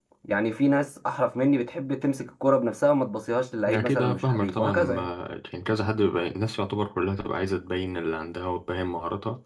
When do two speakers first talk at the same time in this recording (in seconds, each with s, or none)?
3.7 s